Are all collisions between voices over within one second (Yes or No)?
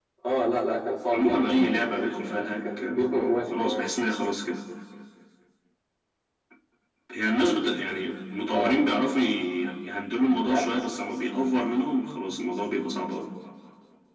No